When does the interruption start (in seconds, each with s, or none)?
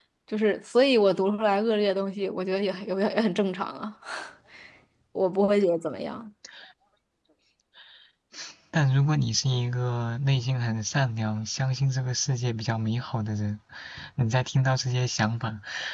none